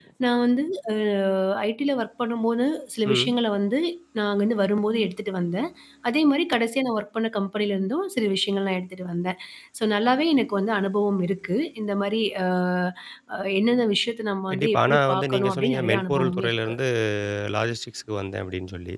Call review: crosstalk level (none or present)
present